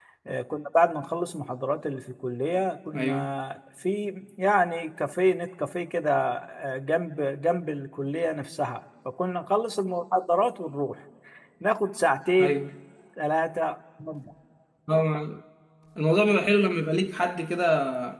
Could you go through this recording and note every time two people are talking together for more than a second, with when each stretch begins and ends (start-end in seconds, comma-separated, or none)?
none